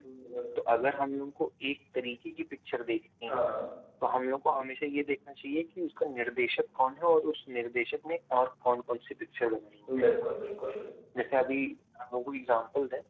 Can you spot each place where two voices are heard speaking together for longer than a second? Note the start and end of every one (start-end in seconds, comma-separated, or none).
none